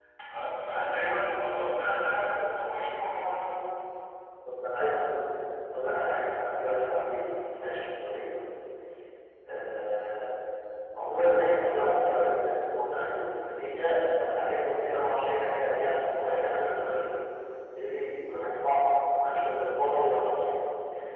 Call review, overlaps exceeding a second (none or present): none